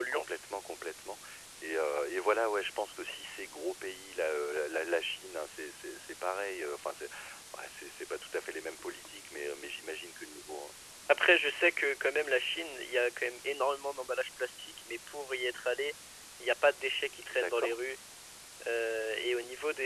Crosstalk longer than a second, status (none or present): none